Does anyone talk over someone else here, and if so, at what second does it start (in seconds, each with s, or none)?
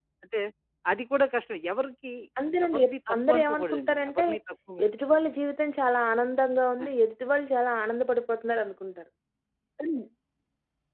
2.6 s